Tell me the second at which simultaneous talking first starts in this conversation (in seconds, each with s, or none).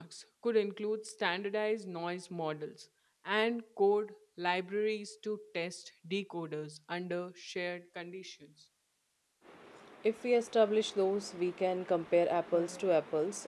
none